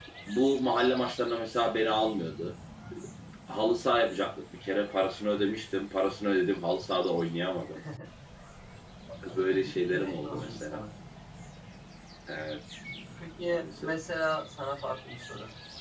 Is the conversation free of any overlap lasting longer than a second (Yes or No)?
No